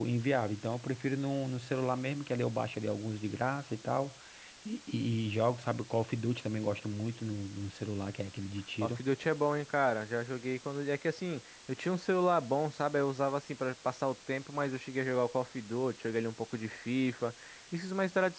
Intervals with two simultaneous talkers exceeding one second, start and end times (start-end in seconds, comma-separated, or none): none